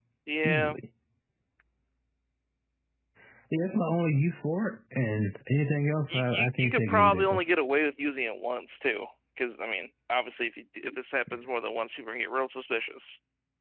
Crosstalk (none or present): present